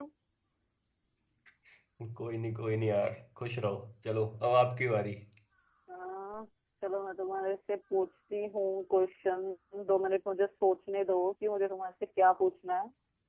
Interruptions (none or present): none